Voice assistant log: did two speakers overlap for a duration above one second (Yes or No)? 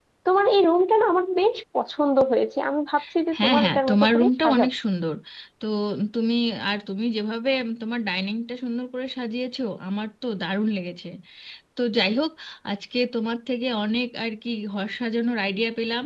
Yes